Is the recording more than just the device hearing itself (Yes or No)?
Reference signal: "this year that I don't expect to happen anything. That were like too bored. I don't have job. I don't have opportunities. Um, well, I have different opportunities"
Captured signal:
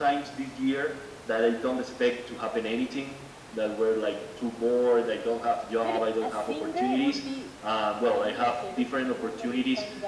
Yes